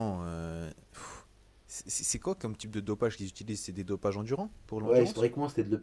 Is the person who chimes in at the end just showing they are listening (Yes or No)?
No